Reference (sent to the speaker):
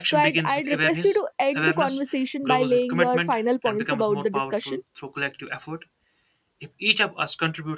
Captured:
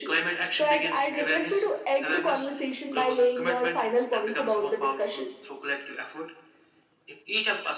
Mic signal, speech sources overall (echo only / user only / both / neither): echo only